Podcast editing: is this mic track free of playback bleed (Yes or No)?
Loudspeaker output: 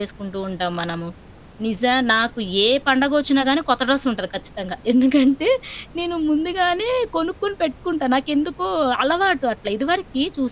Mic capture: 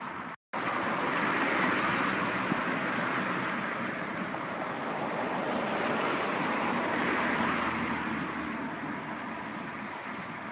Yes